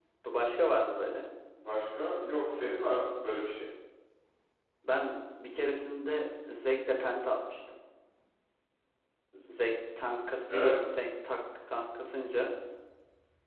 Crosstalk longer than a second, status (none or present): none